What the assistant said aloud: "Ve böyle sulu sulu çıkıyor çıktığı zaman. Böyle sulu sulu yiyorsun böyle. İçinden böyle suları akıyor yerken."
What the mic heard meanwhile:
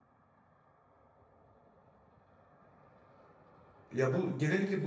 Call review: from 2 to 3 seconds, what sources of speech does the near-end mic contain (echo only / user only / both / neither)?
neither